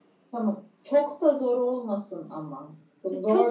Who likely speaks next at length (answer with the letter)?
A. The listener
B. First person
A